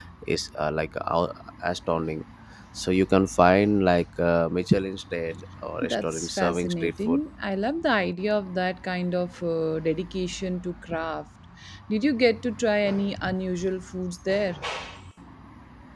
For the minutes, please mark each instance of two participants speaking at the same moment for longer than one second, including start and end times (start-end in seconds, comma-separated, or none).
5.8-7.2